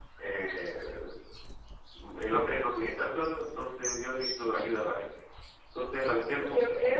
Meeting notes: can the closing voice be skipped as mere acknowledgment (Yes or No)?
Yes